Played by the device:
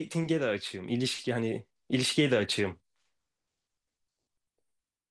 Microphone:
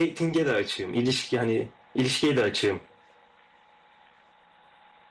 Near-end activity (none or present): none